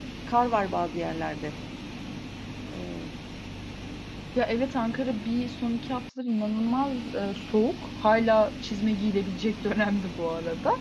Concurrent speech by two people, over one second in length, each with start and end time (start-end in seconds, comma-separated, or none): none